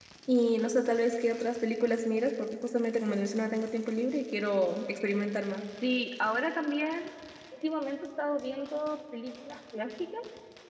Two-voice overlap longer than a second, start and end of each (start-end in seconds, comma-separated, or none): none